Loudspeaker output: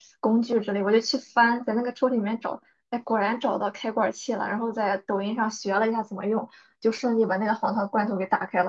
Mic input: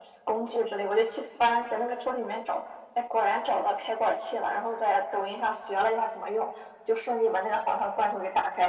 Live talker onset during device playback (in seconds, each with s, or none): none